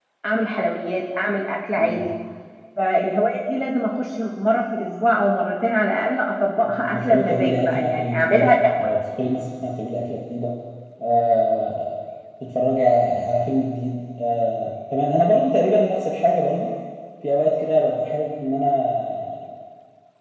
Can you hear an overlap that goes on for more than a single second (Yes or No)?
Yes